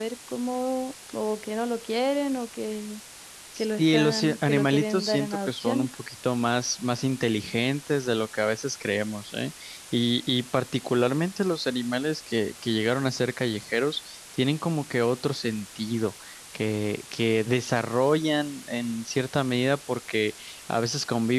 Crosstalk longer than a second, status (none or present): present